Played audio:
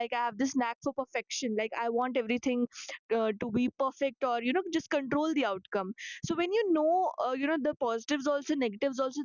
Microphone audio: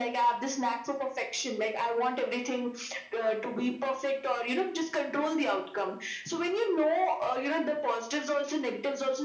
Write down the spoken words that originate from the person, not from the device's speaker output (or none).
none